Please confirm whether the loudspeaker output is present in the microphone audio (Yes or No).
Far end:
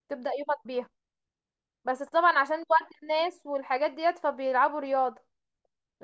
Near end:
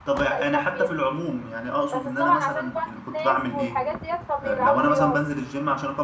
Yes